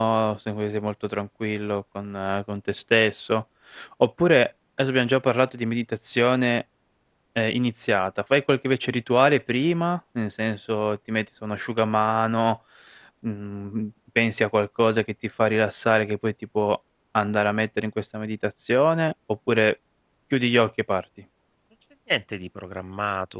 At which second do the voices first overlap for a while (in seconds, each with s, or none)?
none